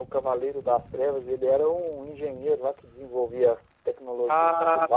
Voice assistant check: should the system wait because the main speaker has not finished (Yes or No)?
No